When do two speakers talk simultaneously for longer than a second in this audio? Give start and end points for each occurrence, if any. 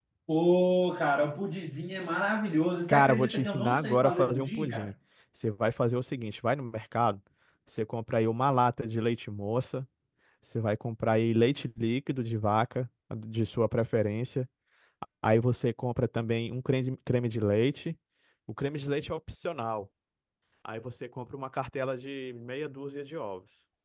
2.9-4.9

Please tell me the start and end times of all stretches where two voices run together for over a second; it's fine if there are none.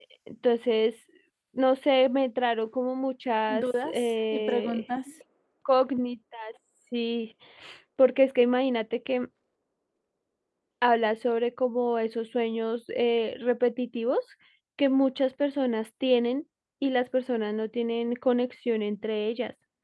3.5-4.8

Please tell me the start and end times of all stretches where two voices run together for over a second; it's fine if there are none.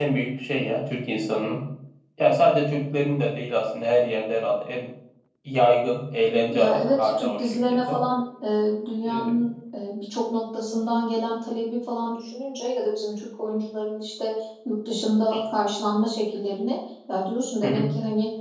6.5-8.0

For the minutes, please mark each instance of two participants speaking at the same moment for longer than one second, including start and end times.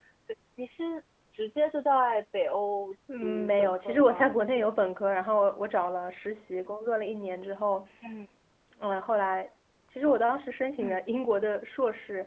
3.2-4.7

